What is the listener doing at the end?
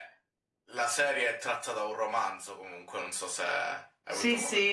taking over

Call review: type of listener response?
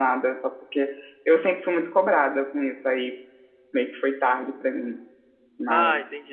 taking over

